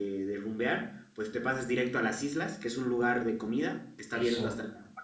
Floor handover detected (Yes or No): No